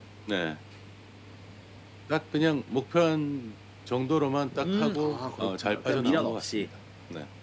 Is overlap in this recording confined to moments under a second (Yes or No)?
No